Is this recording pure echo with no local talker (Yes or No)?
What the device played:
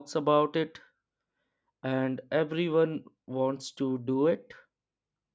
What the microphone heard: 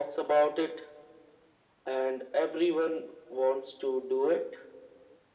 Yes